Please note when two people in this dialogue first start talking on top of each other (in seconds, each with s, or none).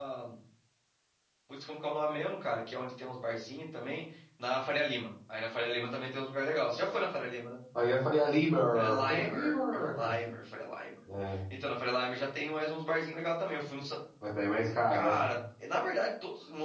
8.8 s